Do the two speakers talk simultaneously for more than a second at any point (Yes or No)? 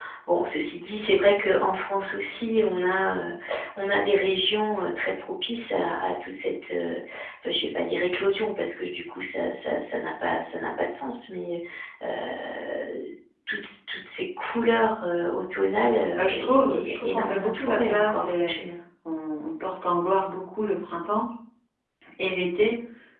Yes